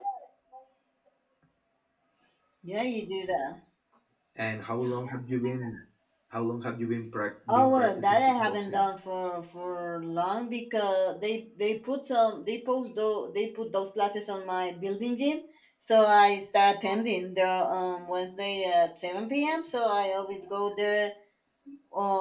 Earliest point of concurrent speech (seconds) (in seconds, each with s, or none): 7.5 s